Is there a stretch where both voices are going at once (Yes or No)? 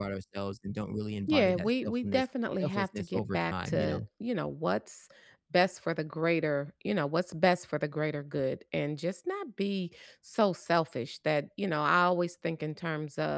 Yes